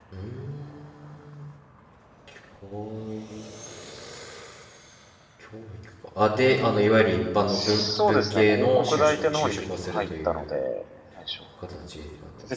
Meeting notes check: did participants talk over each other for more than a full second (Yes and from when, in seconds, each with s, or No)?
Yes, from 7.5 s